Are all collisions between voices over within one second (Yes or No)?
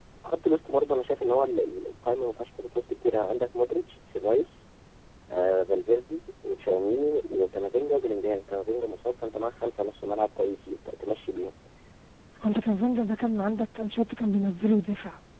Yes